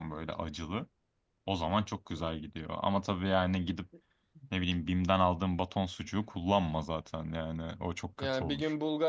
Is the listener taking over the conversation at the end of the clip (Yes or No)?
Yes